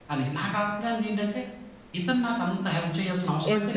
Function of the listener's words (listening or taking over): taking over